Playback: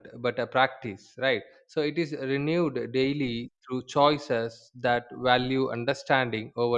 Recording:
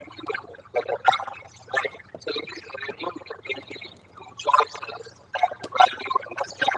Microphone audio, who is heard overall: echo only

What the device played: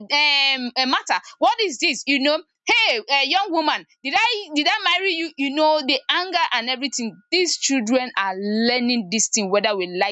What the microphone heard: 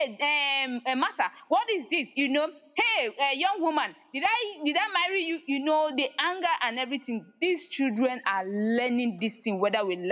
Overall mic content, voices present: echo only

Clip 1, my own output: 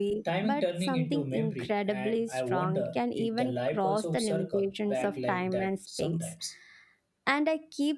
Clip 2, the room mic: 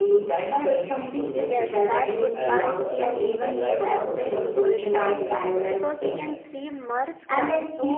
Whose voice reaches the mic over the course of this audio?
both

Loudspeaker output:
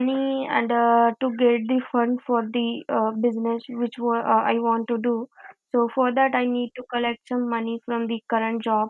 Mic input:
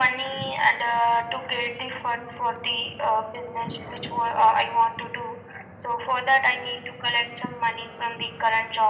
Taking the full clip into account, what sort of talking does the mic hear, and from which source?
echo only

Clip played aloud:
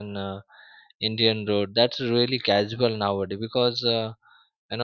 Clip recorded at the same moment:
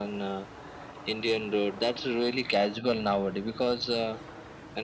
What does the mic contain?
echo only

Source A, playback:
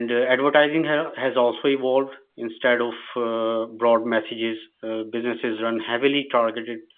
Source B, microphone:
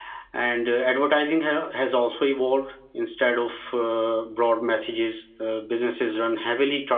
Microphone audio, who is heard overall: echo only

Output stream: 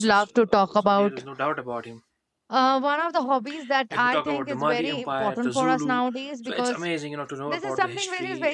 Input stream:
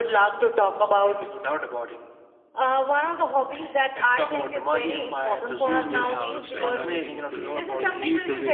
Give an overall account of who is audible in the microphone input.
both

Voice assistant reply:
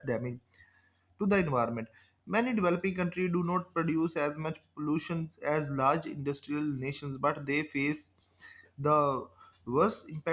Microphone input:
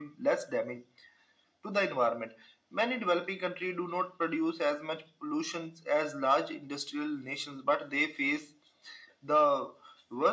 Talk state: echo only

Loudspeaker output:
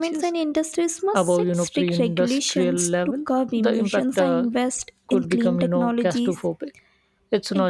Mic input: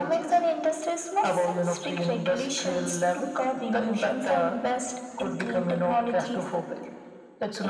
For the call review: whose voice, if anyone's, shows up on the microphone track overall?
echo only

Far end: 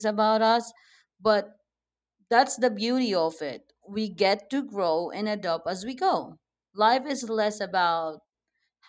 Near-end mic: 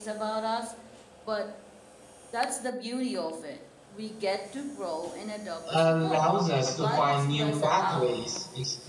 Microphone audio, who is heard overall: both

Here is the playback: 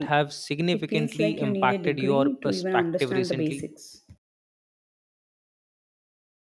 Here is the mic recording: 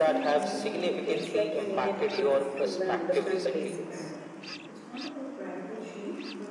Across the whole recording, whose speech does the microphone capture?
both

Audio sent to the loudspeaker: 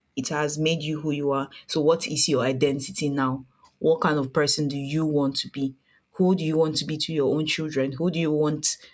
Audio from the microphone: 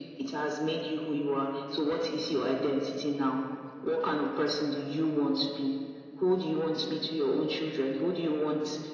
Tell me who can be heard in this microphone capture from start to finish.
echo only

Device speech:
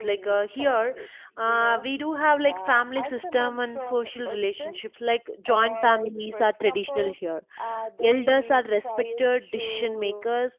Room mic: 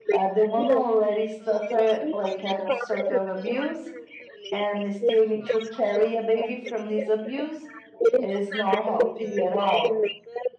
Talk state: both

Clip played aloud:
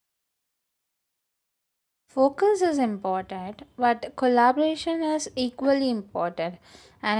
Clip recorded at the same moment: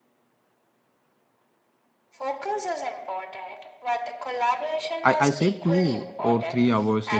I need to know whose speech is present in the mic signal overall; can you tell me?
both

